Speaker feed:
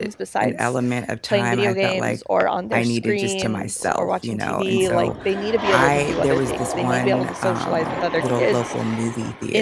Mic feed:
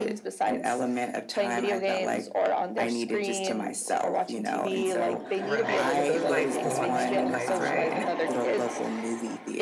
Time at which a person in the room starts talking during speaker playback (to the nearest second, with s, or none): 5 s